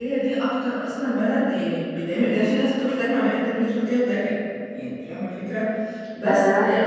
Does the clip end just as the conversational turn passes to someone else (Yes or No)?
No